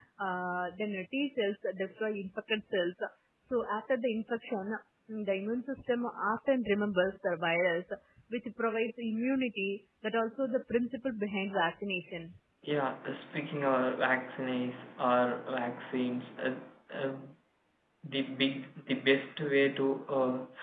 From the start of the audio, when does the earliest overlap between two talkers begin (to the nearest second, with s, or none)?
none